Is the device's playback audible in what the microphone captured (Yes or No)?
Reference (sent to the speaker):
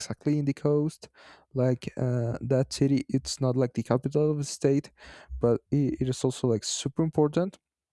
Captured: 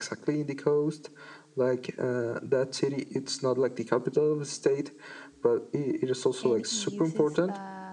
Yes